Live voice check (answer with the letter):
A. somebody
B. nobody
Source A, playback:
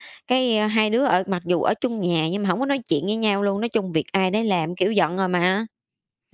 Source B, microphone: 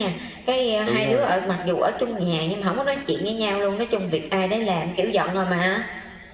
A